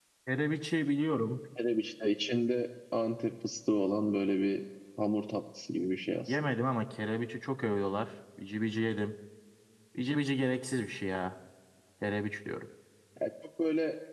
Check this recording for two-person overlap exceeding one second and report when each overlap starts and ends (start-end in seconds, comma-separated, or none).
none